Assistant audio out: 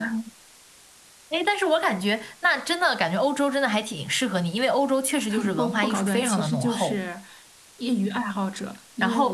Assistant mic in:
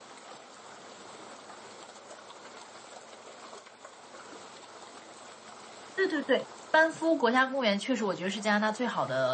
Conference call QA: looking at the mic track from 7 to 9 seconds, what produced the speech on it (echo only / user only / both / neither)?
user only